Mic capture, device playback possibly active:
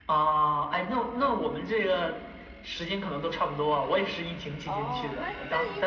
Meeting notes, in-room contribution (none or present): present